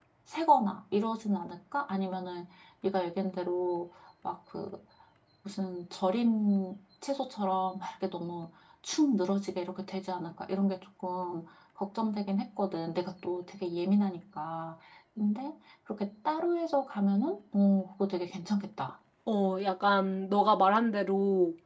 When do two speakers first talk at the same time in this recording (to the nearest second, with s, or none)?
none